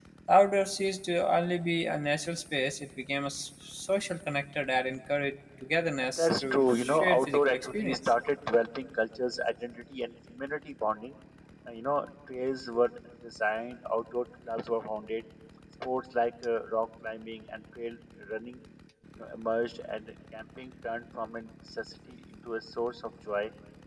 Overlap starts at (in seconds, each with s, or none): 6.0 s